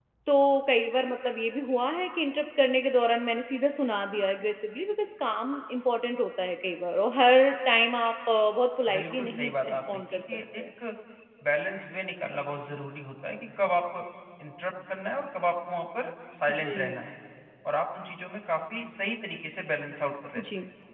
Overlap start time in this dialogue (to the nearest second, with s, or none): 9 s